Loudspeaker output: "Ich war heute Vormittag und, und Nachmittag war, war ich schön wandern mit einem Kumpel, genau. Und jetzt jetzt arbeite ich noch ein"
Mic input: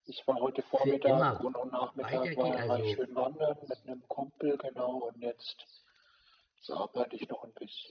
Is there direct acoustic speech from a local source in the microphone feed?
Yes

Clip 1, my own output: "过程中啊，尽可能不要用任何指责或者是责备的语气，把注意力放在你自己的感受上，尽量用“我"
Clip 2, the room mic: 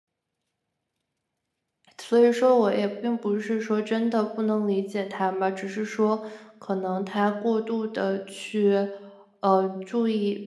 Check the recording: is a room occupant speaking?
Yes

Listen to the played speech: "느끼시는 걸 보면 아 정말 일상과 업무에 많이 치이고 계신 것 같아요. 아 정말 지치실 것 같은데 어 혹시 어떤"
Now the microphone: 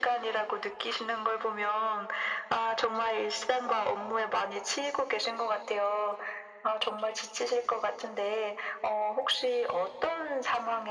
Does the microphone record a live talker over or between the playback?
No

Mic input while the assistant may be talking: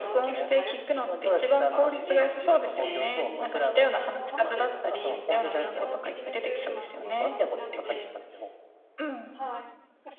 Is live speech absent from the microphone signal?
No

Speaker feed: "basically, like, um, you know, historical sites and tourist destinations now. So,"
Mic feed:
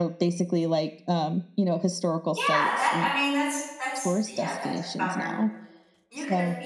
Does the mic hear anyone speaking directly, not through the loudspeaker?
Yes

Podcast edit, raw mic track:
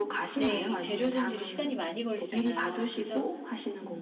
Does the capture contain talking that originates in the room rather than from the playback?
Yes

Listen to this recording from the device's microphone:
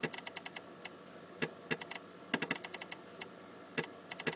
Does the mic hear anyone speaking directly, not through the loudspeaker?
No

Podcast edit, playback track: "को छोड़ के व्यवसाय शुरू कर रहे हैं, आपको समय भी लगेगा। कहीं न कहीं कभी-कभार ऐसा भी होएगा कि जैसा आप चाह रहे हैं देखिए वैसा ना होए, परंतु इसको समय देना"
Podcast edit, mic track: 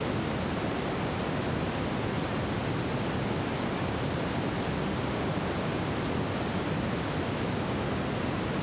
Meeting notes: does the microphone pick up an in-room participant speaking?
No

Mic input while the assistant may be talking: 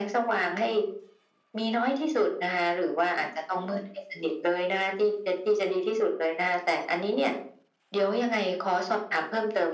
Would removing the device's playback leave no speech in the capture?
Yes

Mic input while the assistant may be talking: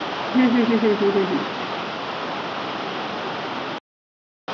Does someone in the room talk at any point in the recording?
Yes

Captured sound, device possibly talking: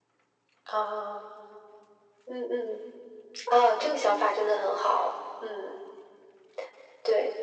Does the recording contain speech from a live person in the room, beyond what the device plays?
No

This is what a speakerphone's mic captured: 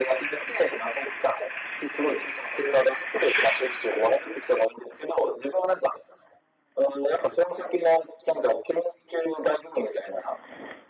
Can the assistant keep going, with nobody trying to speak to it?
Yes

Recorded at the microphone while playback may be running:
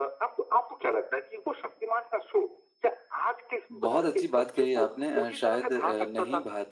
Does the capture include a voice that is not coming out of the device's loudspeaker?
Yes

